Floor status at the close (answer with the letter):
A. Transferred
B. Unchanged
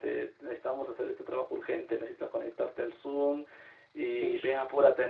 B